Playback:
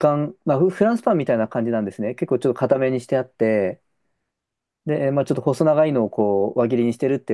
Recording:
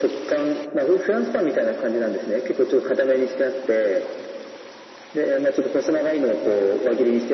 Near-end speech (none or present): none